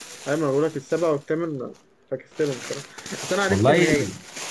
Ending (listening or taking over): listening